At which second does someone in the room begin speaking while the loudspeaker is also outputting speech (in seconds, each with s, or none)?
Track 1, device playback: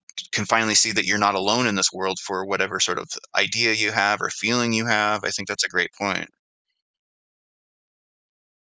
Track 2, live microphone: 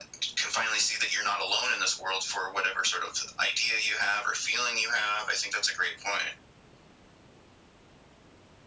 none